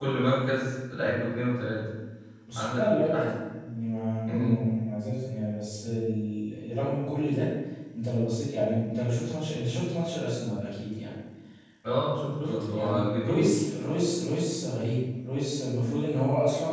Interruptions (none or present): present